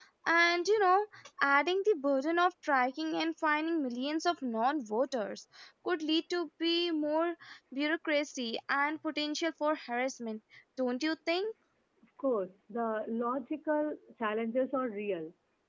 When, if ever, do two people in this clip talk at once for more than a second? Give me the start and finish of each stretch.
none

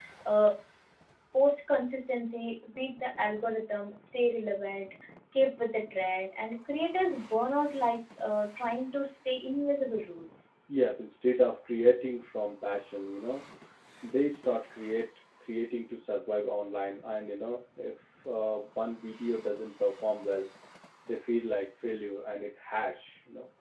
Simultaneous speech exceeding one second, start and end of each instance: none

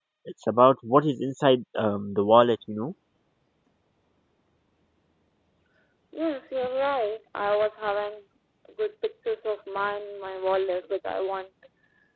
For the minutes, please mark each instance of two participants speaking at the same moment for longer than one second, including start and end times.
none

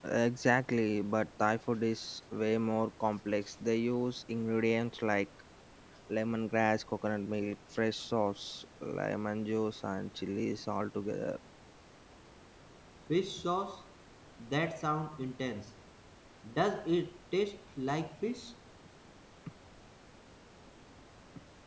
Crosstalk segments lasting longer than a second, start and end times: none

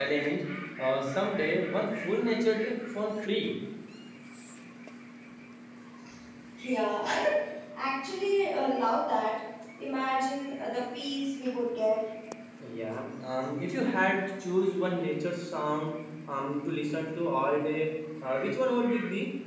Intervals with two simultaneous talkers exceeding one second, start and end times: none

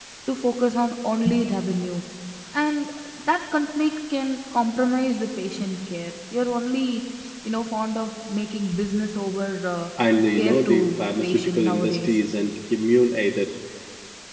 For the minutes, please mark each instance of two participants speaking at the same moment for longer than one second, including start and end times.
10.4-12.2

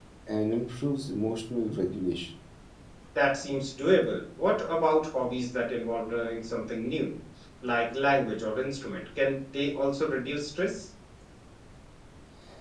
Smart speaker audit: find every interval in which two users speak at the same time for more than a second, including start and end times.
none

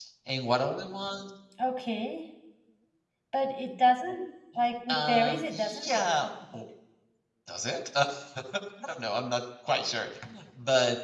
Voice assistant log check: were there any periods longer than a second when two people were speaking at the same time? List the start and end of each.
4.9-6.6

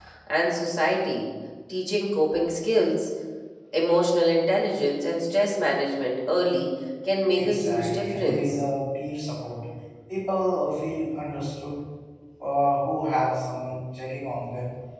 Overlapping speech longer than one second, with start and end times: 7.3-8.6

